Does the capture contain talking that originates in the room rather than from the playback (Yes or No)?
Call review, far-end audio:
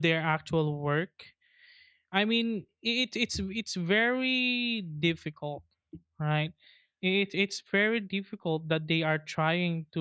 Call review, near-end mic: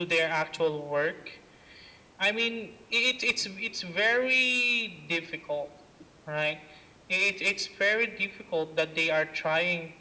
No